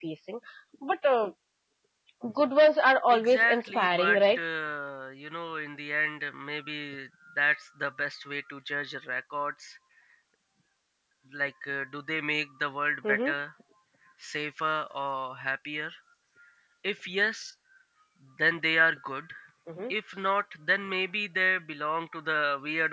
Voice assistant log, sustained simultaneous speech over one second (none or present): present